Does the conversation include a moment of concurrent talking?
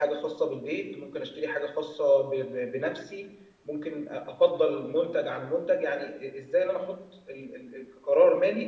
No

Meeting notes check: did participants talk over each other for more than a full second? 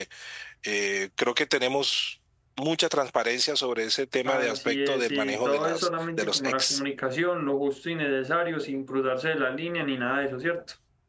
Yes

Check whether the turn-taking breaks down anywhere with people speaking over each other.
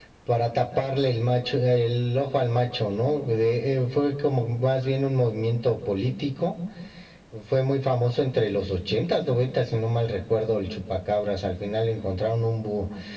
No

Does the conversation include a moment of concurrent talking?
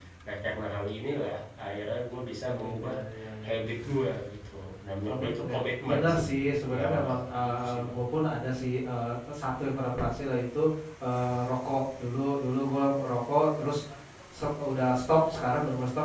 Yes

